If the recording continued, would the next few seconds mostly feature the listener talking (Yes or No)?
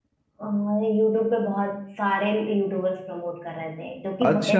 Yes